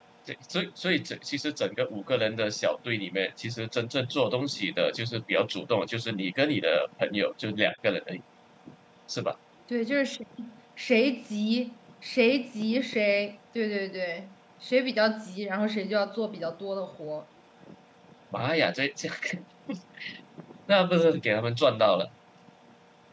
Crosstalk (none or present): none